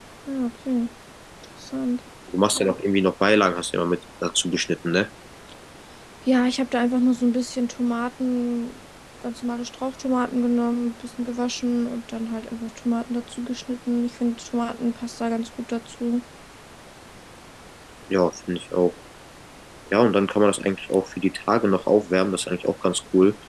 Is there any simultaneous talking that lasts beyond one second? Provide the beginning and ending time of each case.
none

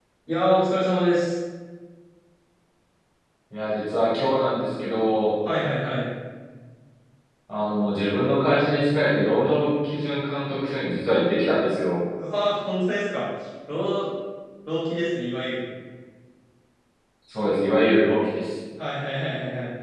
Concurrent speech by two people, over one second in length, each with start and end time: none

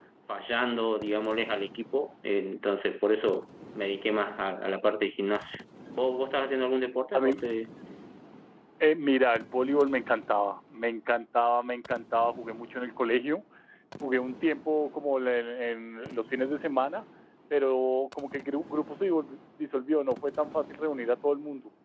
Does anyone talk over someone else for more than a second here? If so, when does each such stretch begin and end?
none

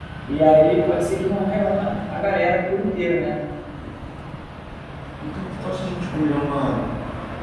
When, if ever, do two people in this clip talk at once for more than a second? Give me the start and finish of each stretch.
none

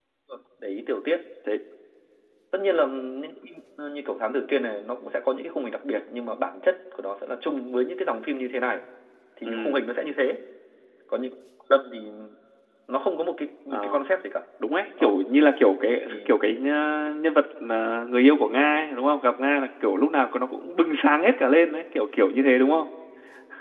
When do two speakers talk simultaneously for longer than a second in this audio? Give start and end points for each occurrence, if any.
none

